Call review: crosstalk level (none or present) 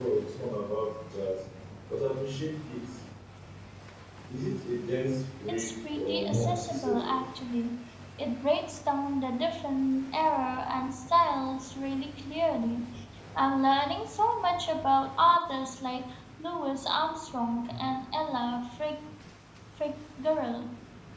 present